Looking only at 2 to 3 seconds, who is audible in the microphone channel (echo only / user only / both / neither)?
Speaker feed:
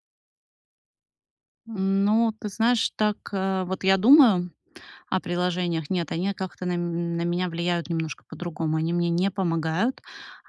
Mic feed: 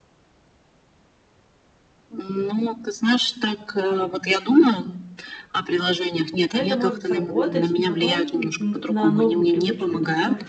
echo only